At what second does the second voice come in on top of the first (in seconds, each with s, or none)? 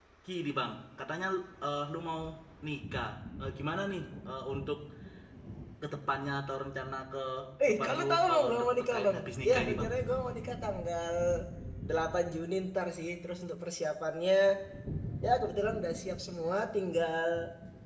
7.7 s